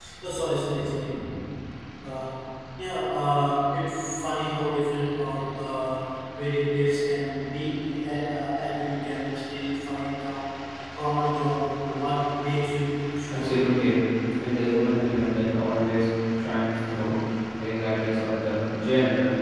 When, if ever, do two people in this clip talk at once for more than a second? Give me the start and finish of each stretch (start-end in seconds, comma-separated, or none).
none